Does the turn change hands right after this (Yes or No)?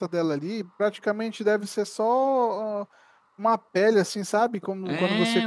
Yes